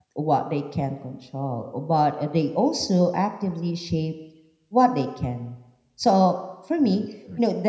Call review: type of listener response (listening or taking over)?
listening